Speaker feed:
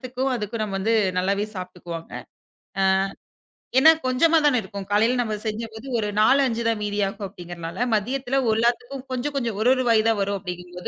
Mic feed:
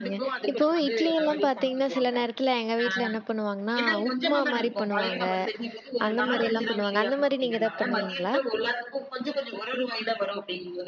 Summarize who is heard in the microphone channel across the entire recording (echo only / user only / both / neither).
both